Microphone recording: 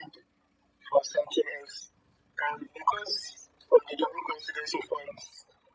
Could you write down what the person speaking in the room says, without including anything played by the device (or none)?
none